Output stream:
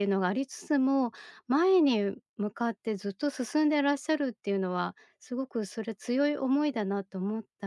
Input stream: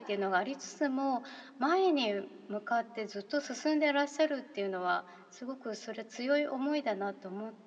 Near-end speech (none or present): none